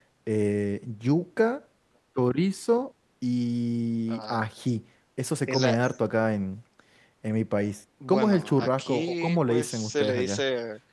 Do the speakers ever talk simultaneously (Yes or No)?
Yes